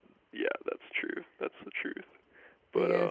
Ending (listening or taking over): taking over